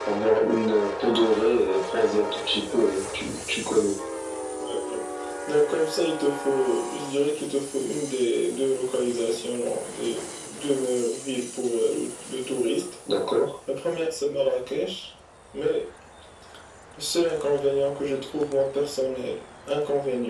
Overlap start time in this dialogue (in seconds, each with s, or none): none